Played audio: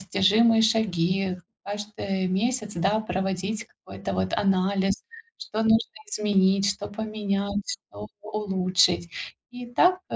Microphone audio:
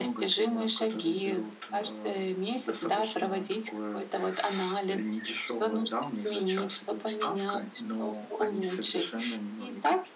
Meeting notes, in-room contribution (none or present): present